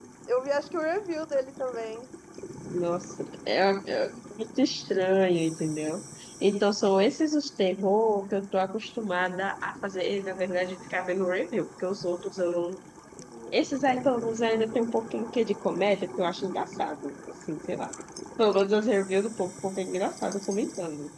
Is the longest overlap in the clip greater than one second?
No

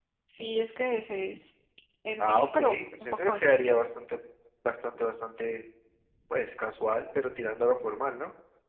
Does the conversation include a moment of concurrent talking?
Yes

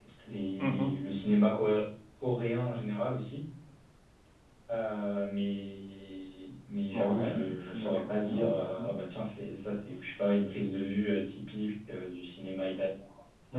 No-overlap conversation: No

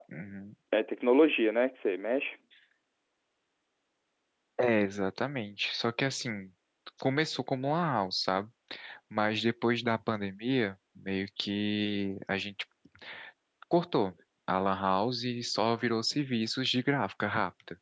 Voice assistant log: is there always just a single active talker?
Yes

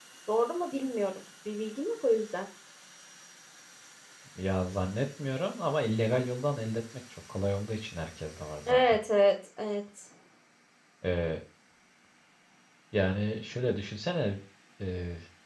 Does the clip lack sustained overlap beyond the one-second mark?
Yes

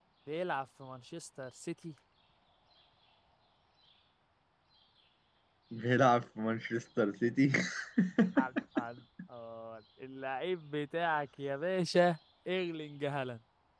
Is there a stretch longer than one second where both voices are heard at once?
No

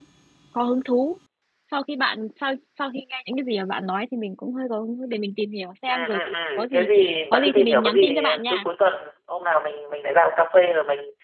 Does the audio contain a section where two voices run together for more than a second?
Yes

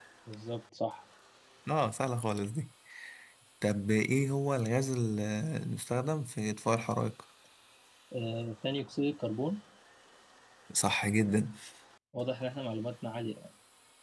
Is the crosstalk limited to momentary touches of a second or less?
Yes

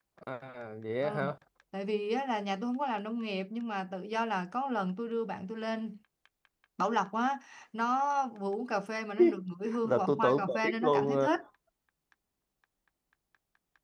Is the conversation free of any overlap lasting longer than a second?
No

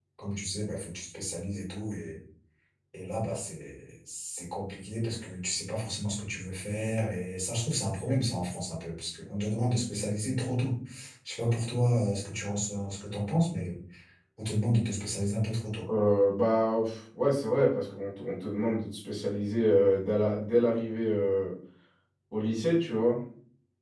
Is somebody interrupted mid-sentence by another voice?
No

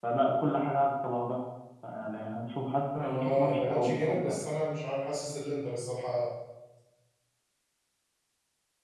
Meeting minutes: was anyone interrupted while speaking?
Yes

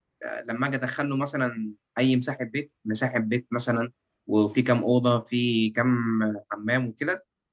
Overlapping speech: No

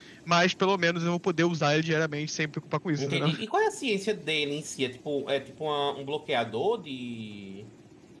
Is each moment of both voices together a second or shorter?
Yes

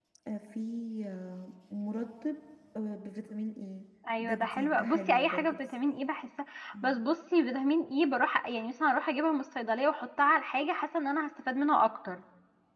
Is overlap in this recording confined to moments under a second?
No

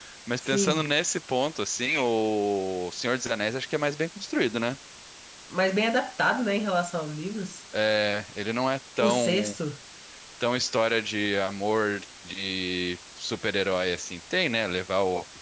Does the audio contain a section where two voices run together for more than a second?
No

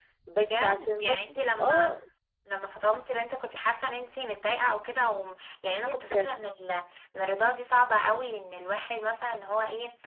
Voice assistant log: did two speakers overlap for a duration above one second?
Yes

